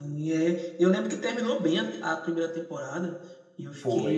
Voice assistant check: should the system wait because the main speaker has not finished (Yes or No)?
Yes